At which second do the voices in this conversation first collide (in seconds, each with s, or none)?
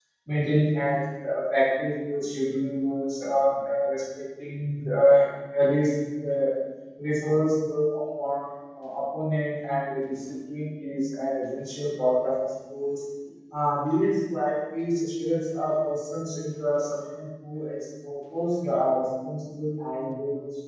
none